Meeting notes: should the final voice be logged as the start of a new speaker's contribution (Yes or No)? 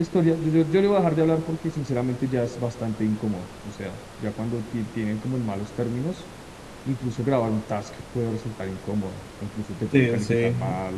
Yes